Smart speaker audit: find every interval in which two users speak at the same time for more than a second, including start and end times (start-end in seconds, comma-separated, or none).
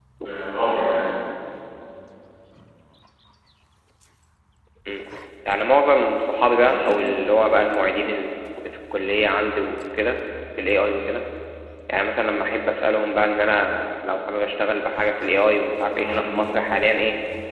none